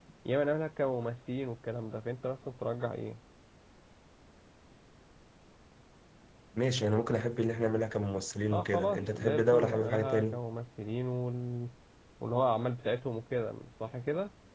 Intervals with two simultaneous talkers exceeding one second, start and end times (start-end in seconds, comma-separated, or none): 8.5-10.4